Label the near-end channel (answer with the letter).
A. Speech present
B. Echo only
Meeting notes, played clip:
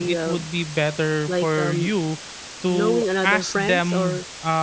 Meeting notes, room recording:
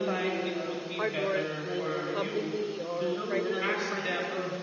A